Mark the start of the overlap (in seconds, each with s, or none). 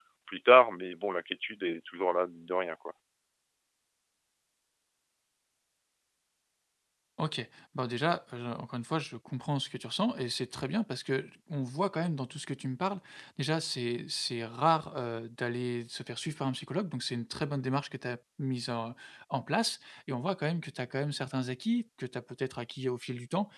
none